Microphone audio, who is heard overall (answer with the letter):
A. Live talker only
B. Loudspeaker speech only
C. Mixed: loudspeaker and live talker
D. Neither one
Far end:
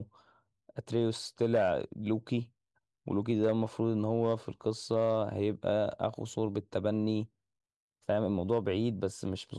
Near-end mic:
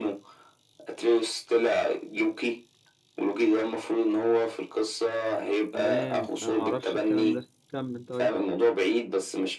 C